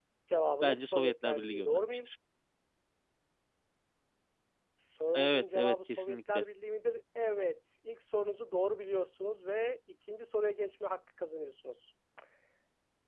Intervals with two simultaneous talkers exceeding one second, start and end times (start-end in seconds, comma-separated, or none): 0.6-2.1, 5.1-6.5